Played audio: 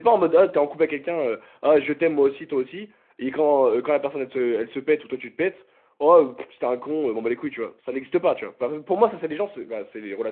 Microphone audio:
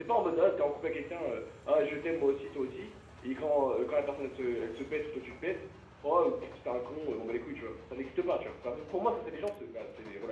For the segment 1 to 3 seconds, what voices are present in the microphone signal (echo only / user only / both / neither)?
echo only